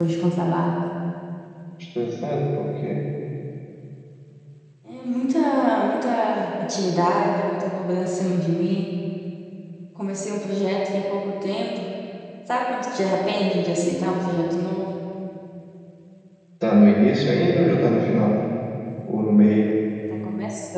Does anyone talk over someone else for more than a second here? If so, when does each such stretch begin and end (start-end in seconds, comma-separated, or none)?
none